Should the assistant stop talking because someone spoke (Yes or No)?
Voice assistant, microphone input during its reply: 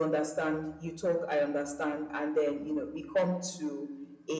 No